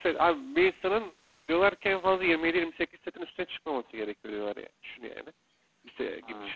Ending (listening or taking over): listening